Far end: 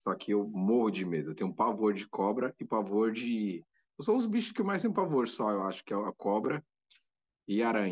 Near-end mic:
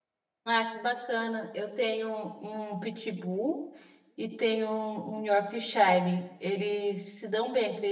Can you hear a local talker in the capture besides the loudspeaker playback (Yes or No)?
Yes